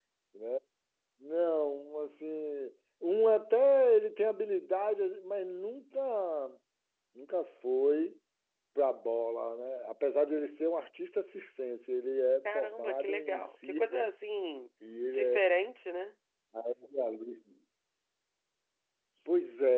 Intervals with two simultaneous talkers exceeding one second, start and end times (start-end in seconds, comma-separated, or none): 12.4-14.1